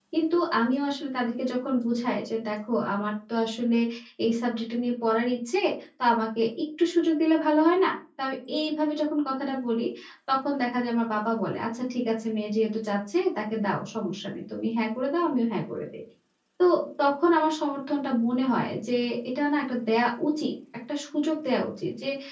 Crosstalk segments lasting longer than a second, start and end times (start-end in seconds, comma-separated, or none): none